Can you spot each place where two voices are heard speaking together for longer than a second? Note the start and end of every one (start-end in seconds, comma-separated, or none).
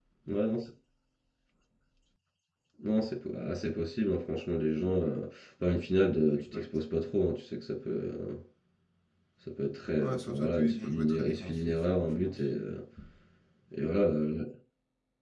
10.0-12.4